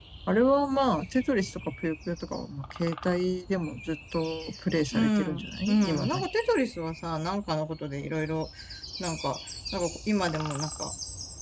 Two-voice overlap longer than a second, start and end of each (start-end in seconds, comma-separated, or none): 4.9-6.3